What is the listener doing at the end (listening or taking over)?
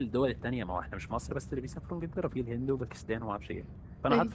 listening